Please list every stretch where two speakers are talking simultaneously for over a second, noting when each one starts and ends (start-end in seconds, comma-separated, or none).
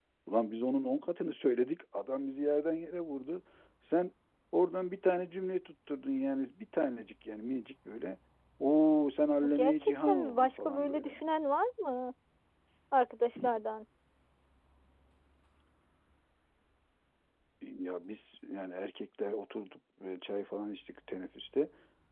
9.6-11.2